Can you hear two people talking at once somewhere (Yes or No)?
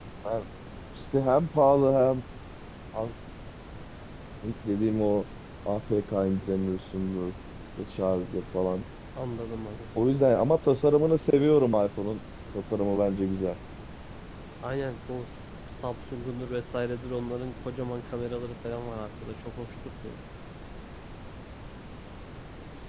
No